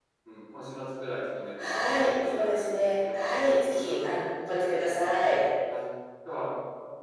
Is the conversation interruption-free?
No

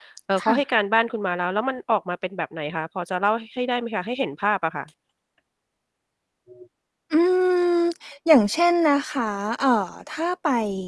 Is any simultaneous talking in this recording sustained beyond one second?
No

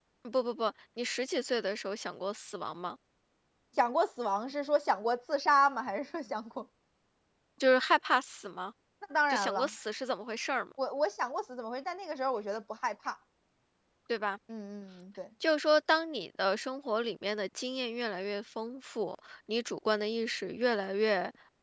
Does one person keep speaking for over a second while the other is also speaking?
No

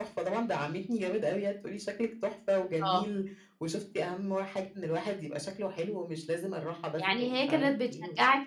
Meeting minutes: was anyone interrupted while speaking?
Yes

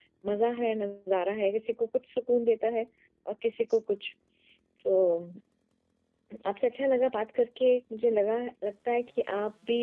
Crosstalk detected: No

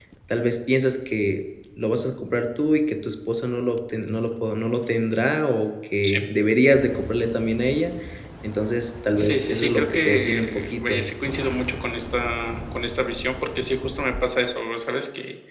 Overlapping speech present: Yes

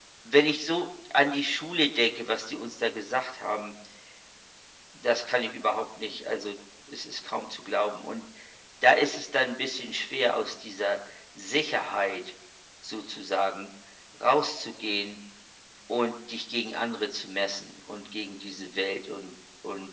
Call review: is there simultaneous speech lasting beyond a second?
No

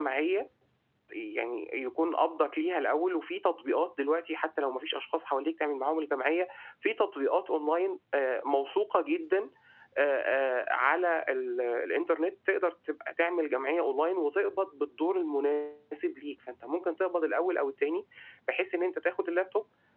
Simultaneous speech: No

